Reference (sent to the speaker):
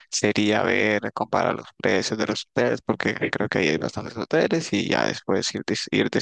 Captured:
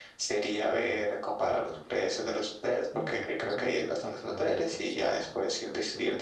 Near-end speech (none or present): present